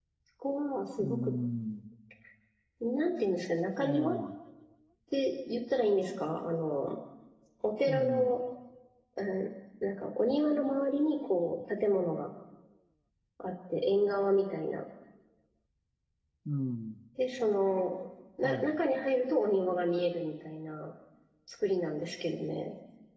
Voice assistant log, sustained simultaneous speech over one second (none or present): none